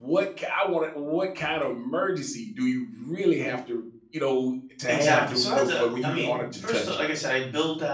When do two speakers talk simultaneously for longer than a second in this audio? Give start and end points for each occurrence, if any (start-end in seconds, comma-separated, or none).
4.9-6.8